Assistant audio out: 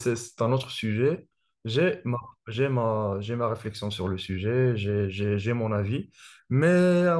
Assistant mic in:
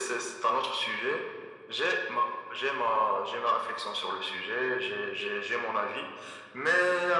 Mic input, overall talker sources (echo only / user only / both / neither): echo only